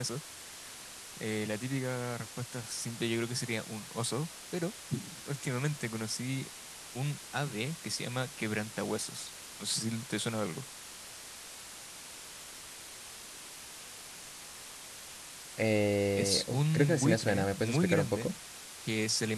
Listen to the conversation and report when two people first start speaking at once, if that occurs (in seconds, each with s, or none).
16.1 s